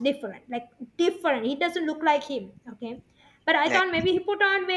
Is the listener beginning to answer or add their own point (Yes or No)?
No